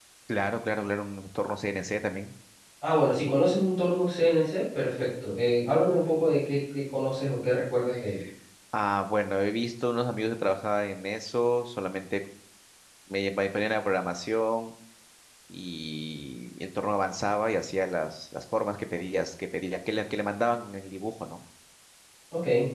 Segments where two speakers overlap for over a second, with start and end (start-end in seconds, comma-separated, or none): none